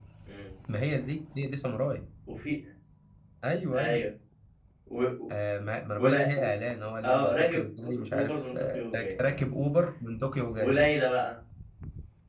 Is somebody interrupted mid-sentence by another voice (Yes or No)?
Yes